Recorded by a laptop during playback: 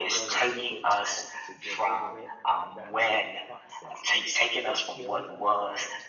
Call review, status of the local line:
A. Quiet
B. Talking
B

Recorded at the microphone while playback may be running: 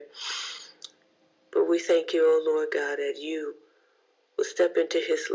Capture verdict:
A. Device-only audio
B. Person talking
A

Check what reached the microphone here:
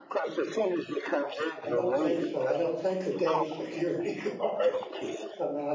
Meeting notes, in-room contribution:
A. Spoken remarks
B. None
A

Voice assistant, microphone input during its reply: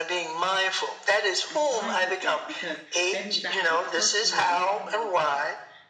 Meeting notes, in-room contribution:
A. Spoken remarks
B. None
A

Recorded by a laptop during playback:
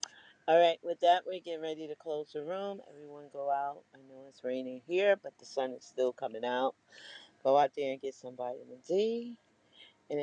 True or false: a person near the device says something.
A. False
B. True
B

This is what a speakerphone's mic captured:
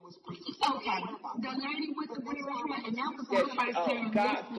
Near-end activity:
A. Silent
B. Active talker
B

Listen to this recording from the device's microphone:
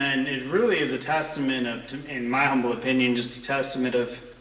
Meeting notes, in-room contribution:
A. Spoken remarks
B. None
B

